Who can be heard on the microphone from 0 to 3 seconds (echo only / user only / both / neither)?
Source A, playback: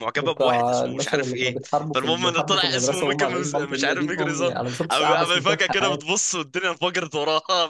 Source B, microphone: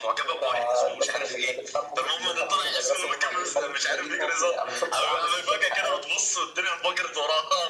echo only